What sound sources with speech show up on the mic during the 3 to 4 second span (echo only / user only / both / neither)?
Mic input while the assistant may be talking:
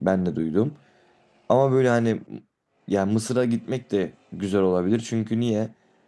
user only